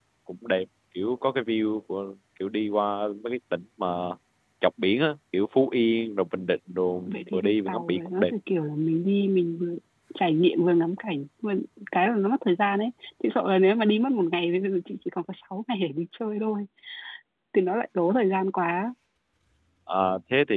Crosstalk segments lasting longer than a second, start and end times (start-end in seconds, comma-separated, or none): 7.1-8.3